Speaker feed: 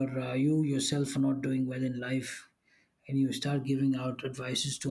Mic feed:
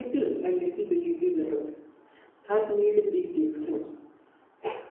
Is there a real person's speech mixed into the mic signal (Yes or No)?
Yes